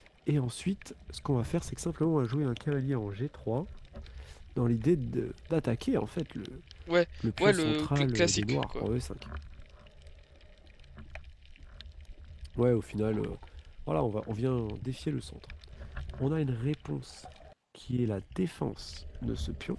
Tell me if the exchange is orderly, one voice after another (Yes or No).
No